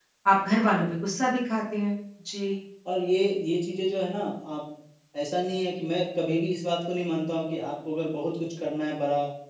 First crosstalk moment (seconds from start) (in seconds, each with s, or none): none